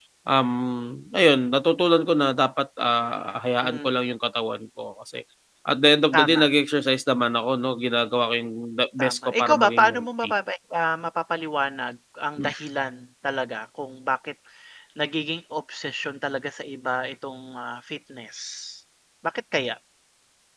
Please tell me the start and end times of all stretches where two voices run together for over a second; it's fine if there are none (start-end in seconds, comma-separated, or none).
9.0-10.3